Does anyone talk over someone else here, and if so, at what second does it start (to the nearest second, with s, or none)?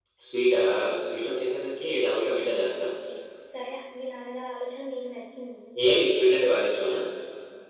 none